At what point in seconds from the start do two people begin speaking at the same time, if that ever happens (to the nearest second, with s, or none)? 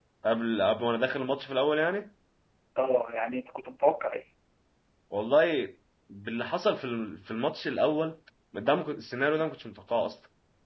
none